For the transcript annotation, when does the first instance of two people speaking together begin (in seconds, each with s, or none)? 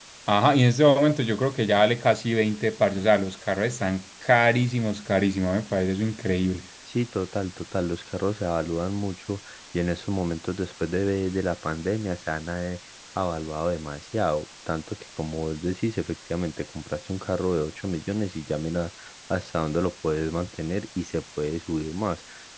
none